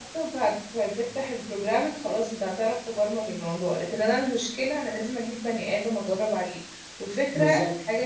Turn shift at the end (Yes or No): No